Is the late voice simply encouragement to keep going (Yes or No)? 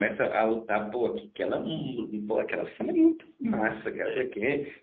Yes